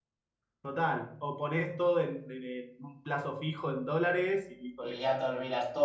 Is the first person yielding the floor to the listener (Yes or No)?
Yes